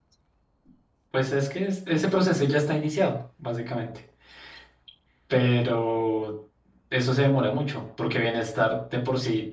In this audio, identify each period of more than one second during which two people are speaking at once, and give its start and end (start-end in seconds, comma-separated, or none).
none